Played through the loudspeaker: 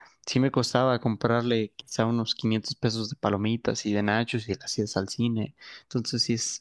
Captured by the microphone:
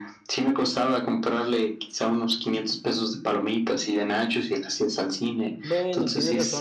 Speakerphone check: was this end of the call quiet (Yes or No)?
No